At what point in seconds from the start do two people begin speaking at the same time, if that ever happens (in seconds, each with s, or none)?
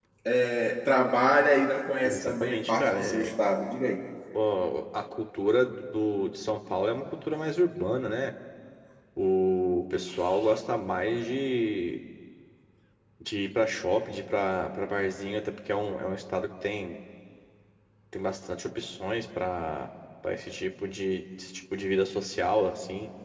2.0 s